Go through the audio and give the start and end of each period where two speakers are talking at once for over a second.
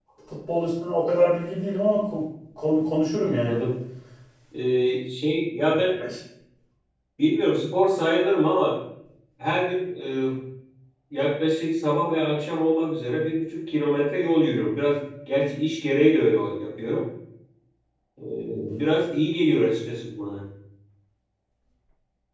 none

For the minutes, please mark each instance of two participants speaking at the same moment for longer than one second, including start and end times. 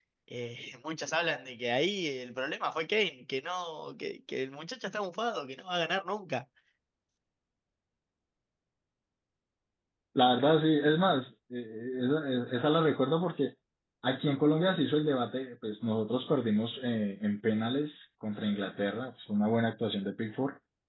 none

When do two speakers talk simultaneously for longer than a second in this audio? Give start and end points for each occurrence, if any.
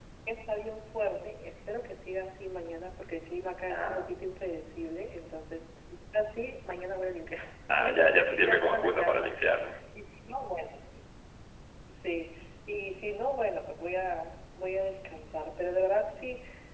7.7-9.3

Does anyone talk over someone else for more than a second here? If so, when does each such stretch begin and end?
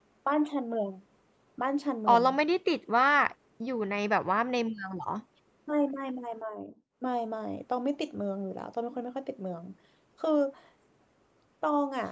none

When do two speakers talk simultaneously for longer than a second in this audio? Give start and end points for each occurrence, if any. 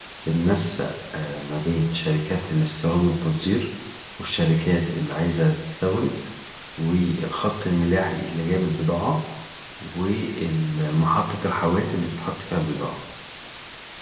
none

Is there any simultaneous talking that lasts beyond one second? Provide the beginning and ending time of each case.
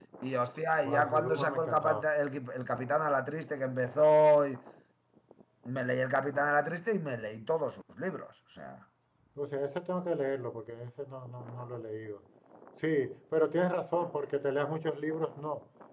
0.8-2.0

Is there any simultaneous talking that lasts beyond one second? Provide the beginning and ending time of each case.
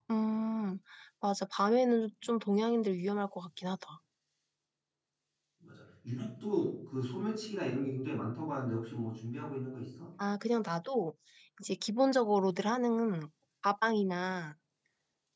none

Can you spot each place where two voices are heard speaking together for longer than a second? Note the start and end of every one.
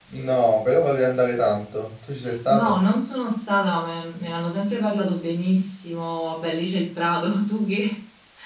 none

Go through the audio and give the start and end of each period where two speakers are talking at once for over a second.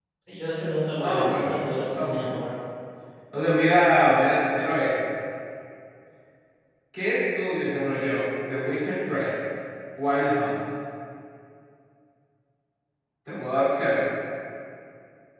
1.0-2.3

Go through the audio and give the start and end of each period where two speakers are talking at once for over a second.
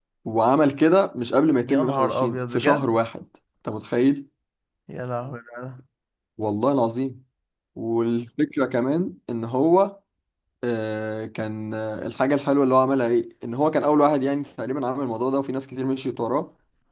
1.7-2.9

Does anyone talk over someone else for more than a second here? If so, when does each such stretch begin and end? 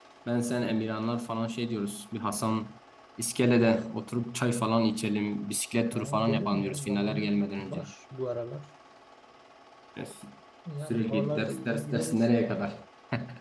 5.9-7.8, 10.8-12.2

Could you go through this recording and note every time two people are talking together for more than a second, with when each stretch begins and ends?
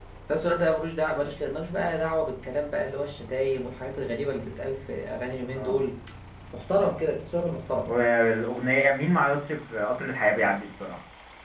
none

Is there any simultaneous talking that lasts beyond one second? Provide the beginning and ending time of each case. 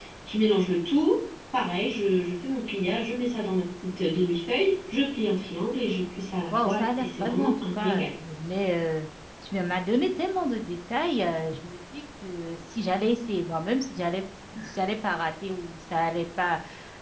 6.6-8.1

